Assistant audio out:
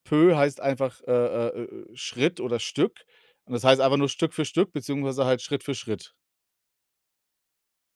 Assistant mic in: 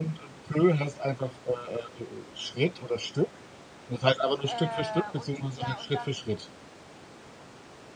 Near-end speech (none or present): present